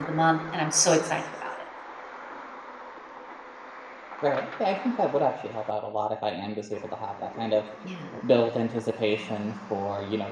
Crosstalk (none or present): none